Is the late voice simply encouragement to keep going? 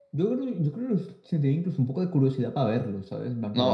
No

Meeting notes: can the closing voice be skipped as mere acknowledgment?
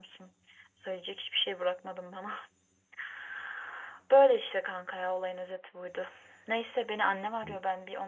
Yes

